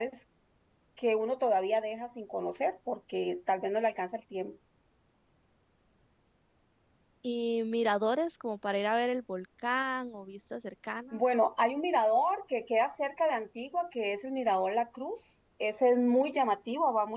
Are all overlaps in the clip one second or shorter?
Yes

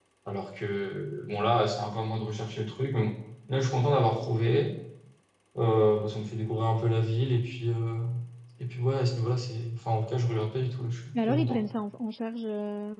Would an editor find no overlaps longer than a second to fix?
Yes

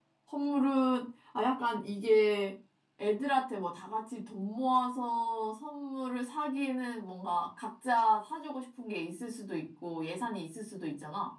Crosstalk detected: No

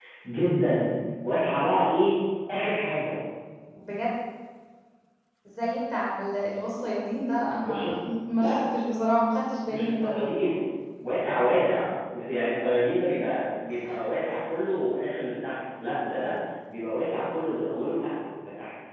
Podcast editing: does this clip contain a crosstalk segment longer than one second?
No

